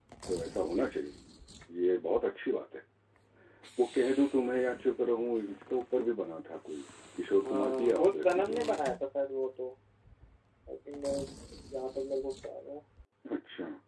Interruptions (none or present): present